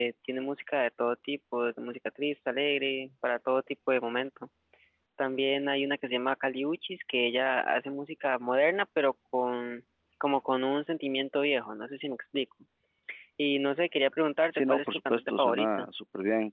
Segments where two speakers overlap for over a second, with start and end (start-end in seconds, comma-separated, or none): 14.5-15.9